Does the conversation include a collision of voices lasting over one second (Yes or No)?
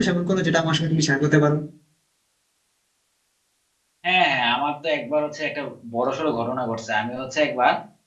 No